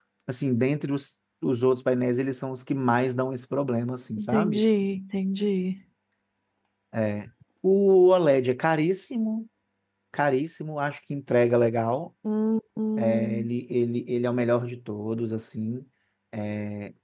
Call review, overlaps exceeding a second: none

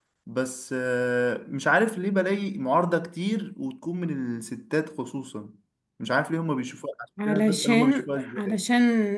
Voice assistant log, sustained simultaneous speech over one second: present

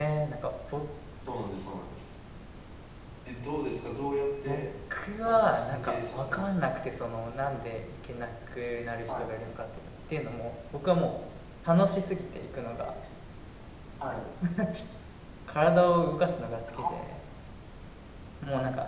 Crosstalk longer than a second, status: present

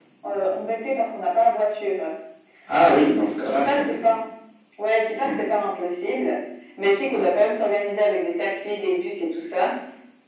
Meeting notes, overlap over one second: present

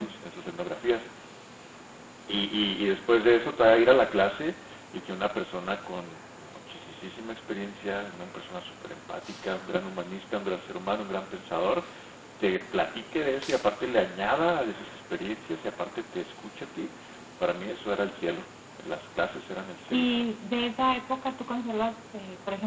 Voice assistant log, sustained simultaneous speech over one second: none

